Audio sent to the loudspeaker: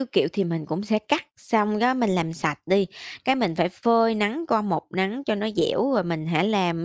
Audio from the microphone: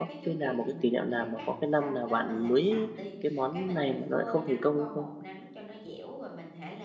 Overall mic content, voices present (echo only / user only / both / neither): both